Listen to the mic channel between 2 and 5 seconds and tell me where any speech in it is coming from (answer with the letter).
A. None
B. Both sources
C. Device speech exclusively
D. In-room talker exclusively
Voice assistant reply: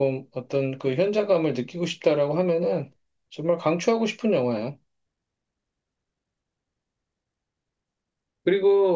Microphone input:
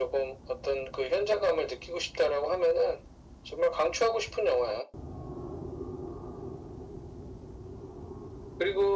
C